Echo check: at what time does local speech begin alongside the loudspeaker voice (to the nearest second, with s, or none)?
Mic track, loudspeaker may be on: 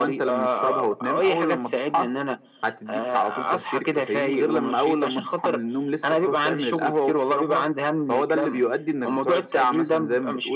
none